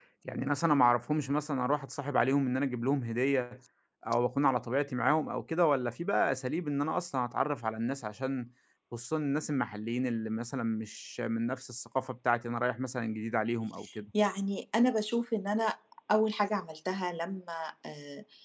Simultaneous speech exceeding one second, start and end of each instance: none

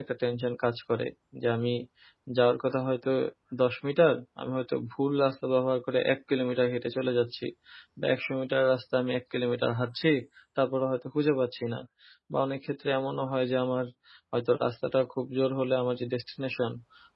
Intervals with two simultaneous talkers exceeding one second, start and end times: none

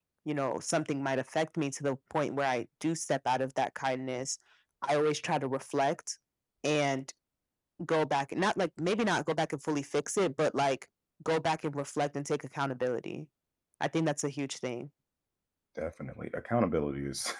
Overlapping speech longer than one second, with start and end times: none

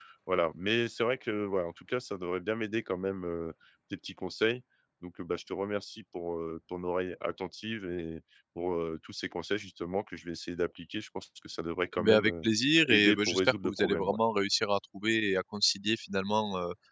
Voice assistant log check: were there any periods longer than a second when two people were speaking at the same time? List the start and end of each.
12.9-14.2

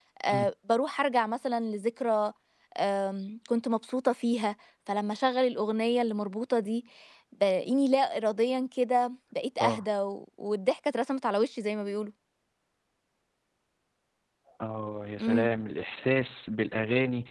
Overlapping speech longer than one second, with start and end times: none

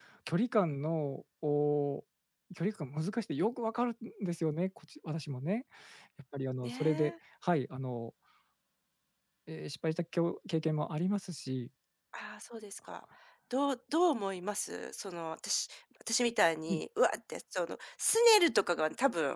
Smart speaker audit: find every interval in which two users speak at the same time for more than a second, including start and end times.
none

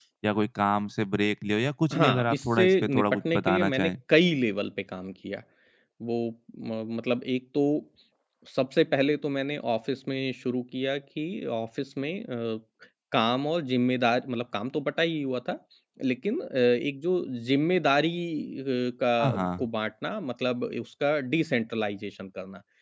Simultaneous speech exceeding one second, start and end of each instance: 1.9-3.9

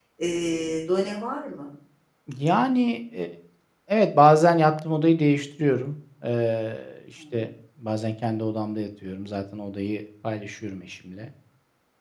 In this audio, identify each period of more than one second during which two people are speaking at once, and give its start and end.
none

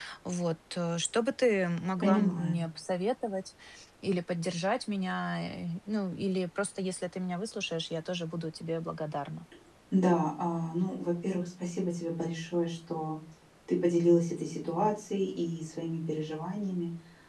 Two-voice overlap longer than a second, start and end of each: none

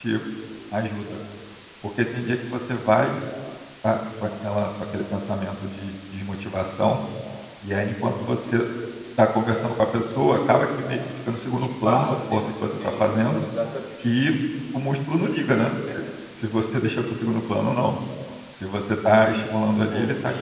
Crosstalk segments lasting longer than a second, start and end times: 11.8-13.2

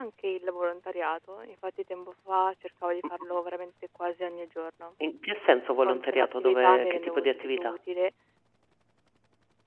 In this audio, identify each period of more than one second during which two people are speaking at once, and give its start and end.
5.8-7.8

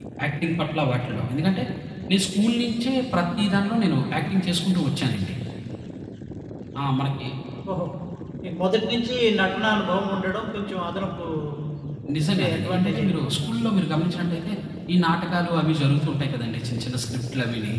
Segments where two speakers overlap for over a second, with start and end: 12.2-13.7

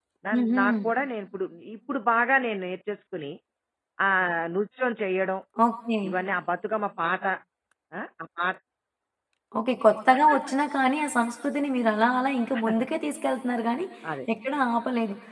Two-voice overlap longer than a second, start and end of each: none

